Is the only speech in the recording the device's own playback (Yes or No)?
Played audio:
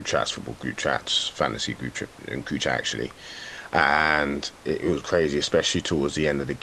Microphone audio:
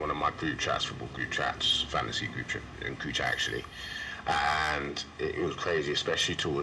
Yes